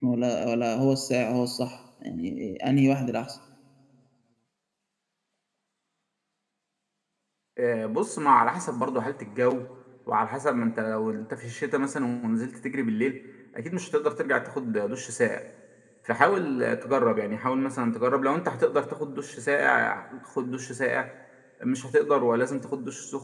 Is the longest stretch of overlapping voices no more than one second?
Yes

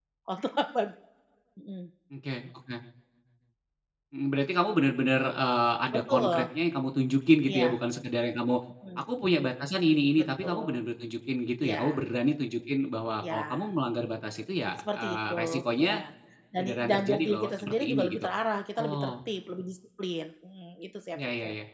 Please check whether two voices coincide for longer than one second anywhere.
Yes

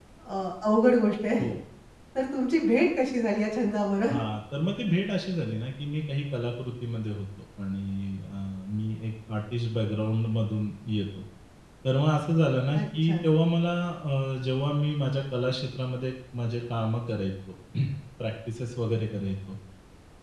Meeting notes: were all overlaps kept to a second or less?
Yes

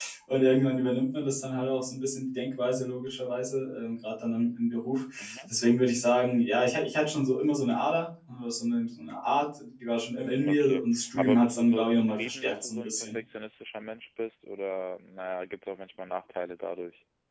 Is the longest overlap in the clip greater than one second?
Yes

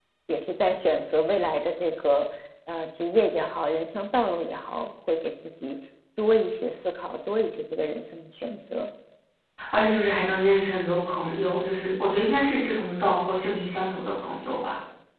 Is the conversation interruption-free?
Yes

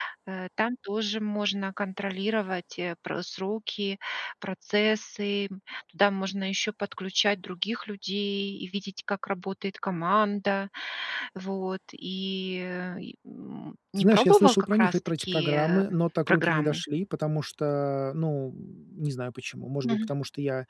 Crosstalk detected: Yes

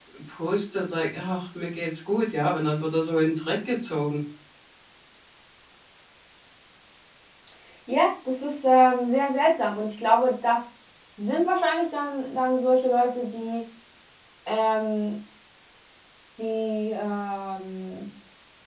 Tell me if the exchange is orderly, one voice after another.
Yes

